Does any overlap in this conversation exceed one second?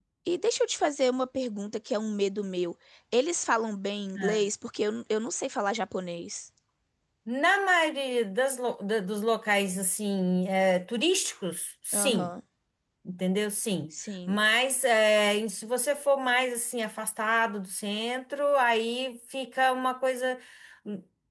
No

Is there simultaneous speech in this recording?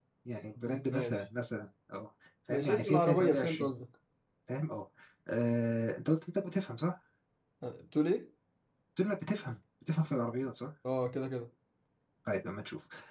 Yes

